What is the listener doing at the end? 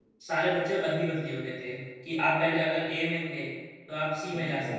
listening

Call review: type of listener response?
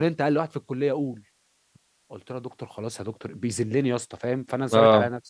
listening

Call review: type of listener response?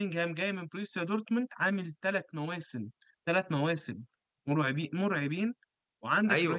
taking over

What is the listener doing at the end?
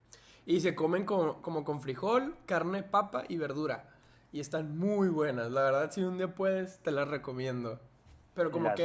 taking over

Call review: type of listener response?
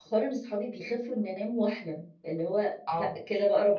taking over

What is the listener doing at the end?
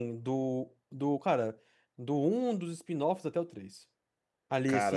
listening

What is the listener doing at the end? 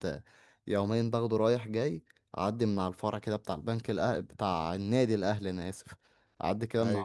listening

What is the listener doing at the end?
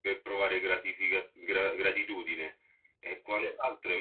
listening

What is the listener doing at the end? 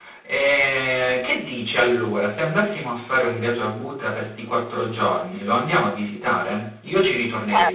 taking over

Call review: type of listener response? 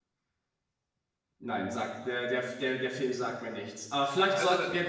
listening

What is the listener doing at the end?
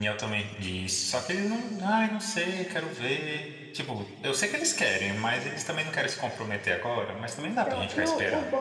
taking over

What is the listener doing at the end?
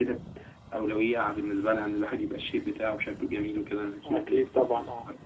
taking over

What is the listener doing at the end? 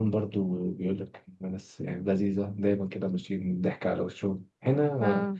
listening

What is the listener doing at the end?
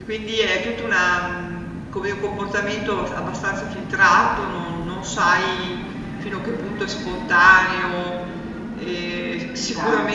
listening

